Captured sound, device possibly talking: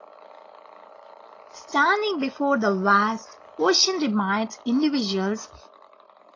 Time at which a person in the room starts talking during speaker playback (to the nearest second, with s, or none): 2 s